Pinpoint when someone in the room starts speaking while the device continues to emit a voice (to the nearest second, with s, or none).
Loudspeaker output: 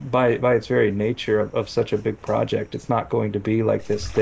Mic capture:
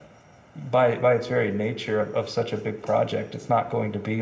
none